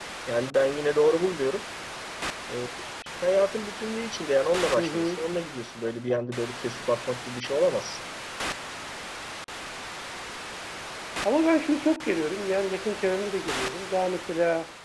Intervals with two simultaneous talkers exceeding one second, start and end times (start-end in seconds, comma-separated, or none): none